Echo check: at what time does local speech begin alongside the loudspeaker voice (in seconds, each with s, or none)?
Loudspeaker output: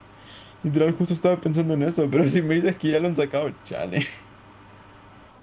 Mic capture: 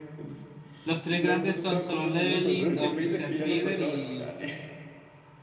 0.8 s